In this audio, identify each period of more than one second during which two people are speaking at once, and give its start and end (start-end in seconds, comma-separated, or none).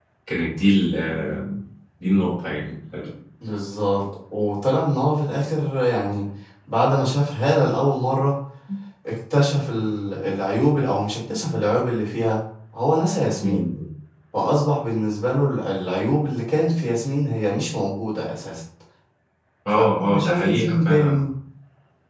19.7-21.2